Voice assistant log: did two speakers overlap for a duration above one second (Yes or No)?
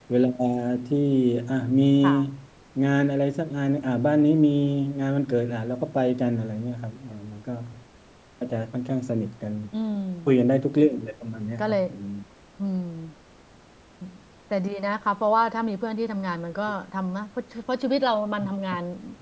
No